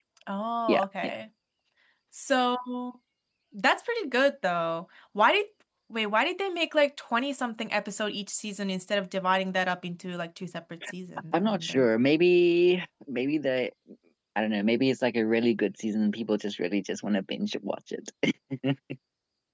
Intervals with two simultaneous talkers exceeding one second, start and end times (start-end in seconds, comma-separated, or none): none